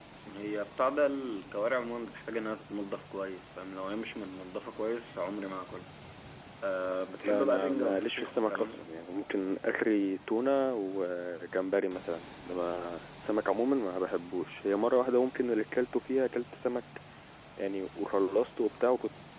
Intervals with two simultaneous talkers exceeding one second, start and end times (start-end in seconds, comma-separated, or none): 7.2-8.8